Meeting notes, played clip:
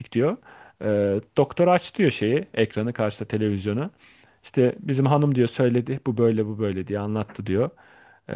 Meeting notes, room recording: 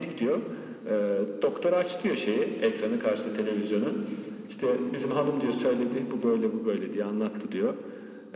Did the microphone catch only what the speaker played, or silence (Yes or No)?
Yes